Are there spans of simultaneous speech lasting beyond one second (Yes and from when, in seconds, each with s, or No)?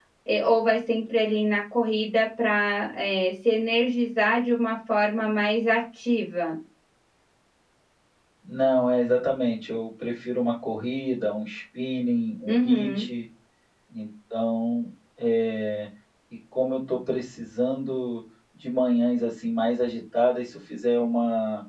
No